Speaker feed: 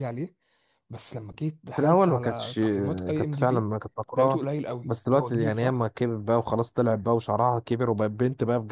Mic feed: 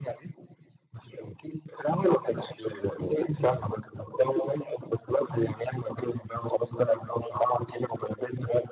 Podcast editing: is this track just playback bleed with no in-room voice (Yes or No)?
Yes